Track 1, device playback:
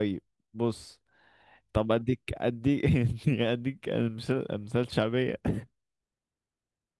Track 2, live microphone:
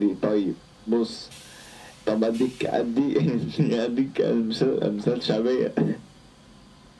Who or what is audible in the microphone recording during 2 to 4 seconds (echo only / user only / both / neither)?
echo only